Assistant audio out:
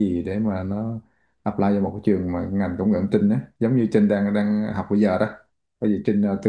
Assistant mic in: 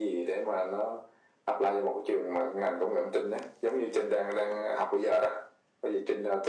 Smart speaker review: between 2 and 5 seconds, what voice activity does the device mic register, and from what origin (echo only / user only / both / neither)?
echo only